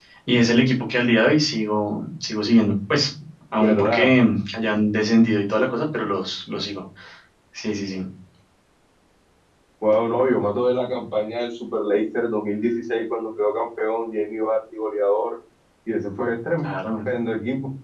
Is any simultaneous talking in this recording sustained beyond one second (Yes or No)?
No